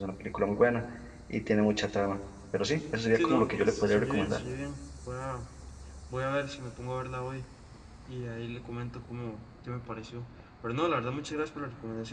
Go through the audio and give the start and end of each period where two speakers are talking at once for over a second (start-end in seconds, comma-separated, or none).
3.1-4.4